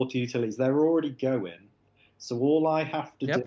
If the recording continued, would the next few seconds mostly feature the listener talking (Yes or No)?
Yes